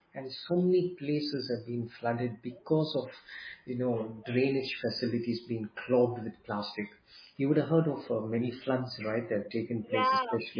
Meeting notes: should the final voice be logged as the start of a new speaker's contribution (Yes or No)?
Yes